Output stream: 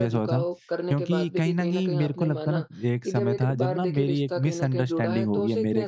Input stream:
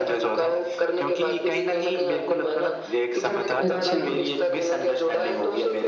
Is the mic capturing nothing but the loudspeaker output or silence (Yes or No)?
No